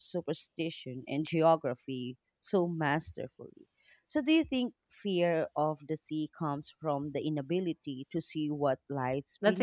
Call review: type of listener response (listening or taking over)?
taking over